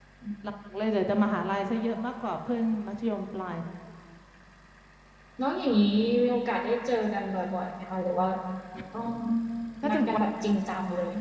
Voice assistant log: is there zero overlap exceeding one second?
Yes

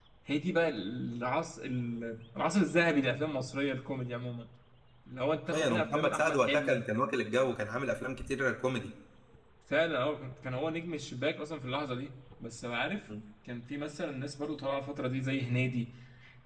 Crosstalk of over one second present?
Yes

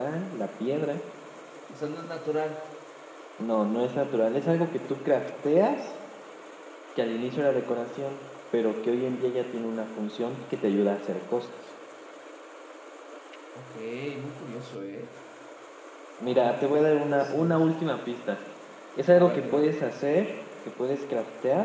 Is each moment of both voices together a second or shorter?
No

